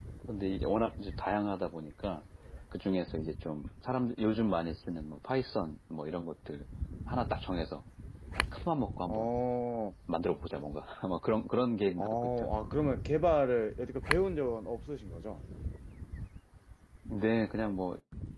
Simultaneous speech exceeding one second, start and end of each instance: none

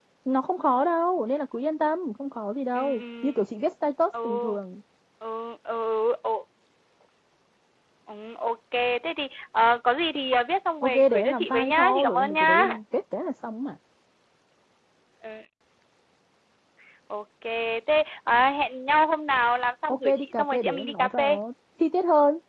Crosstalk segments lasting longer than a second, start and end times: 10.8-12.6, 19.9-21.4

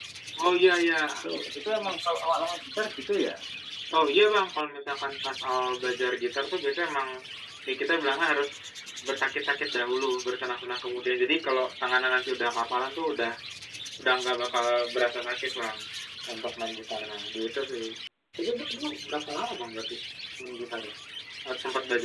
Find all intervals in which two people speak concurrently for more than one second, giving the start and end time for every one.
none

